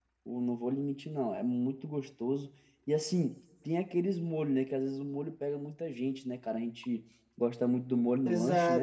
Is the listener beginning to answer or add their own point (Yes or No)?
Yes